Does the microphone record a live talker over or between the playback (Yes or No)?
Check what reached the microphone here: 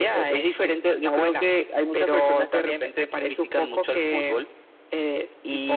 No